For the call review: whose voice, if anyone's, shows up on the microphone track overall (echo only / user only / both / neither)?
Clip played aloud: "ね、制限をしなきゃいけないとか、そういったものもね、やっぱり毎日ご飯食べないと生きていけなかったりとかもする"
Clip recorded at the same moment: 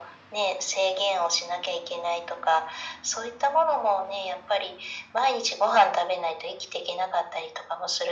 echo only